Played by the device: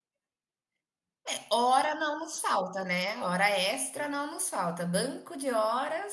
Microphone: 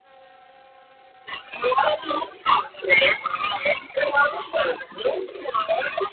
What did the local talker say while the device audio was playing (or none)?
none